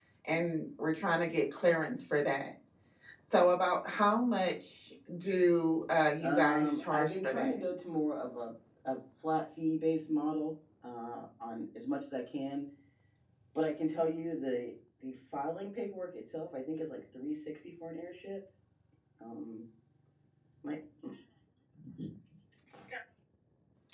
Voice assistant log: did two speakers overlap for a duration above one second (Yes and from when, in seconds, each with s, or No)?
Yes, from 6.2 s